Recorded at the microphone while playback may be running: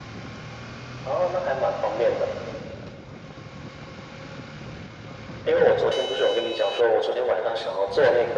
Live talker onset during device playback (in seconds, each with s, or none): none